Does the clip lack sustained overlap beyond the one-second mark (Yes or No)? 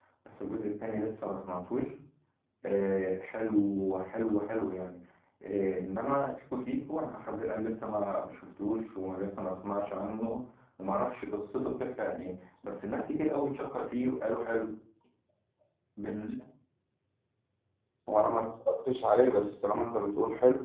Yes